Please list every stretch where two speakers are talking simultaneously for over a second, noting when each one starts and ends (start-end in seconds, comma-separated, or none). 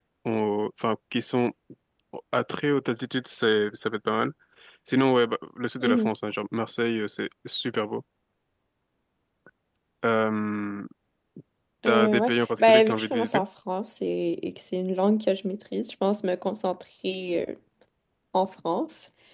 11.9-13.4